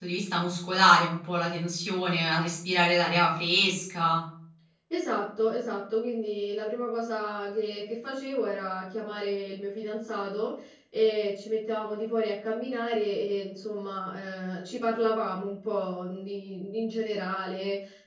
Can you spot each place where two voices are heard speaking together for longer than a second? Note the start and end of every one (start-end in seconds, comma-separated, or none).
none